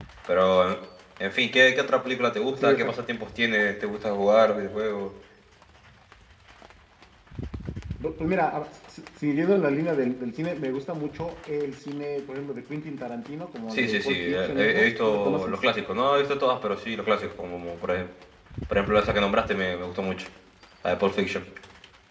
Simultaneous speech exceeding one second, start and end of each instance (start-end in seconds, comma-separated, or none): 13.7-15.5